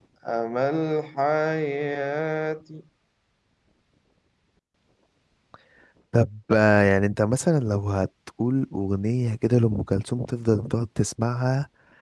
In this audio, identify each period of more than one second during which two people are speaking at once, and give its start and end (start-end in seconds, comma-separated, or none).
none